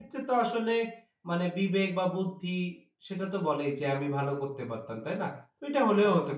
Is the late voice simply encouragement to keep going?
No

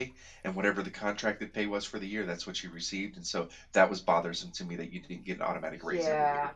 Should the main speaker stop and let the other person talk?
Yes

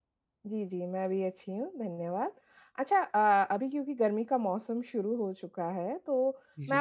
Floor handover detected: No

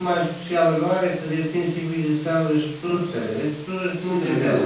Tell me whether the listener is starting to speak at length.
Yes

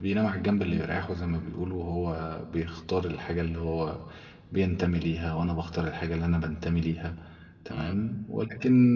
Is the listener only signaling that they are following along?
Yes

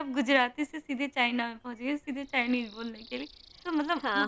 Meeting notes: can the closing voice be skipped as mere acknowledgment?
Yes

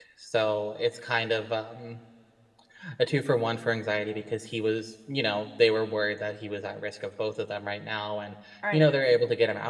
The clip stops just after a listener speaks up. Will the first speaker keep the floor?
Yes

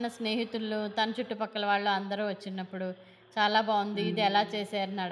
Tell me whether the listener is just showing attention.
Yes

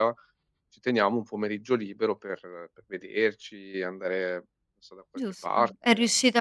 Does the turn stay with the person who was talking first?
No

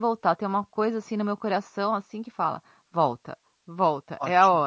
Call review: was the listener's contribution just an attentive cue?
Yes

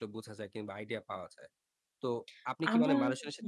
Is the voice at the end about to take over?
No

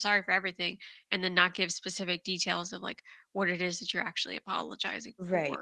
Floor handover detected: Yes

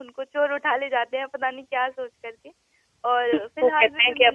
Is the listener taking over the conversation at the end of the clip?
Yes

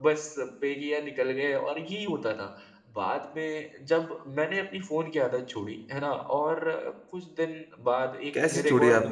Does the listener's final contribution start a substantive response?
Yes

